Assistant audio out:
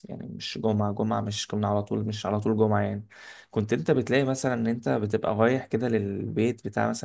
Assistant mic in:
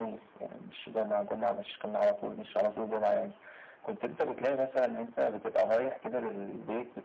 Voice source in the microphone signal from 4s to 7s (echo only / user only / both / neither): echo only